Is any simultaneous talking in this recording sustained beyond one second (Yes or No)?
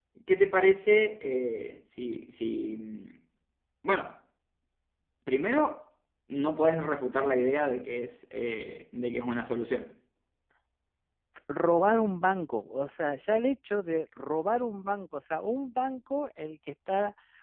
No